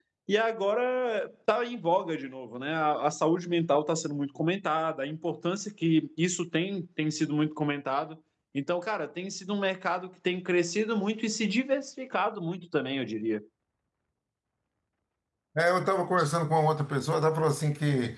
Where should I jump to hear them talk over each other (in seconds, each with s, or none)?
none